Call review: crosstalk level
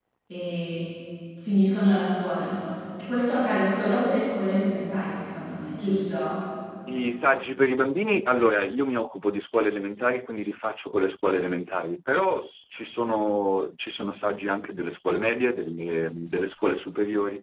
none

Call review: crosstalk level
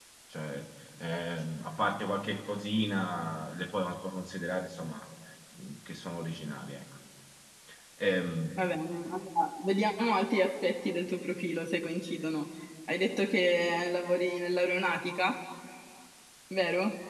none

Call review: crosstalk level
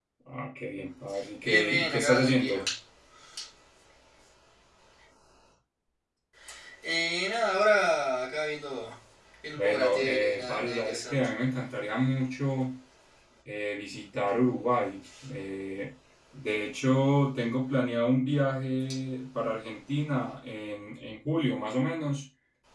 present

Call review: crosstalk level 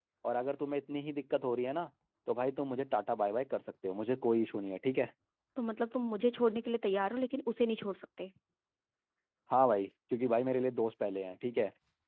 none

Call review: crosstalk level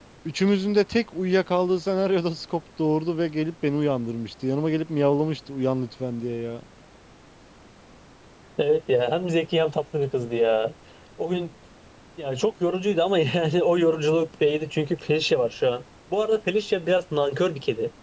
none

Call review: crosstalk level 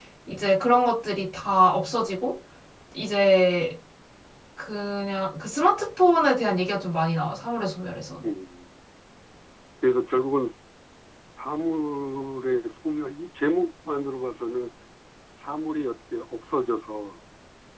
none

